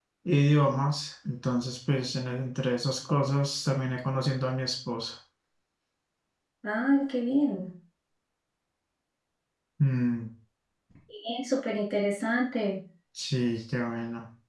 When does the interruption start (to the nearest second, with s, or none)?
none